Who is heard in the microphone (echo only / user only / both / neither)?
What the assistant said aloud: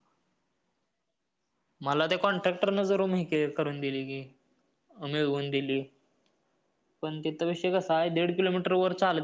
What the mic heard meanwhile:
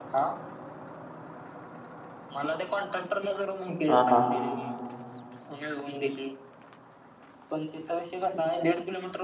both